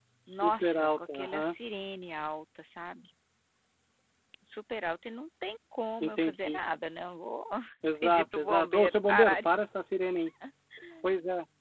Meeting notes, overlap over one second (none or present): present